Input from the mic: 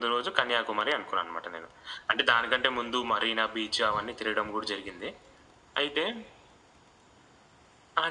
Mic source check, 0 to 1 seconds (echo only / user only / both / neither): echo only